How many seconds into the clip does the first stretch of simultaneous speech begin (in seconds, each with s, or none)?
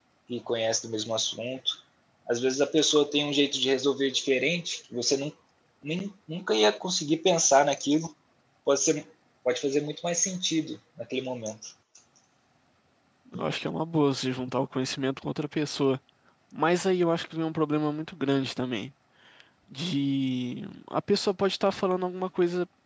none